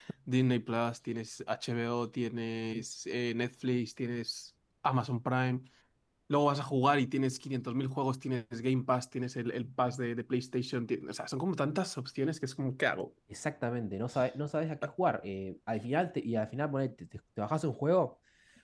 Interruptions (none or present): none